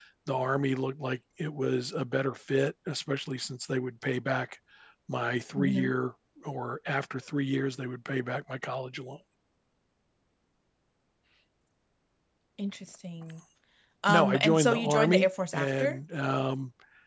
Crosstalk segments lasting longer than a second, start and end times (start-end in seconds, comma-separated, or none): 14.1-16.0